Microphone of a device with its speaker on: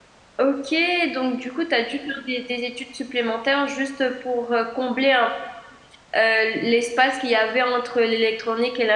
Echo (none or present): none